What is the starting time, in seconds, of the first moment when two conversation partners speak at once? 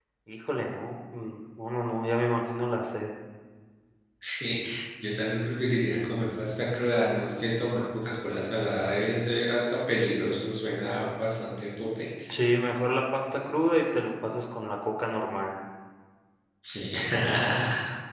none

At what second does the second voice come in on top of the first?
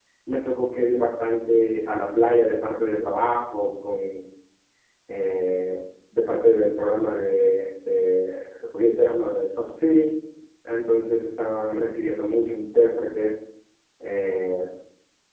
none

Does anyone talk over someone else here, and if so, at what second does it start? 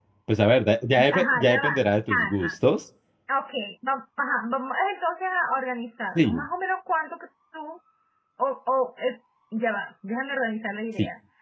1 s

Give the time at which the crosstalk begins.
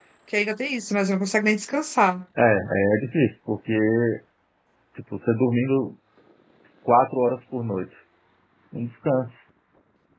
none

